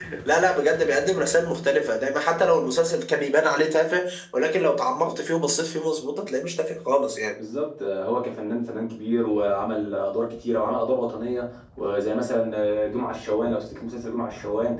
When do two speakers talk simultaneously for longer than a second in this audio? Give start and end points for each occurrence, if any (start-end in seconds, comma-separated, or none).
none